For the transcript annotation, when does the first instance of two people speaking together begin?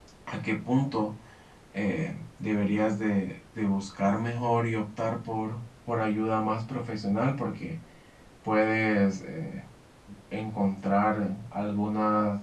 none

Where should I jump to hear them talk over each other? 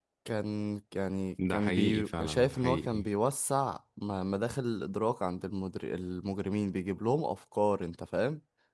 1.4 s

